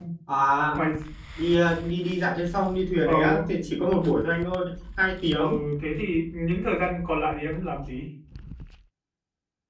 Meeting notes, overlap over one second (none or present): none